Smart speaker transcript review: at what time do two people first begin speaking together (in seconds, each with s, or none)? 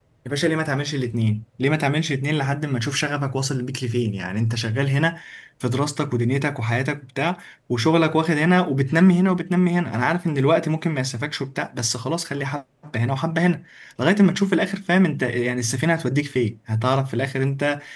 none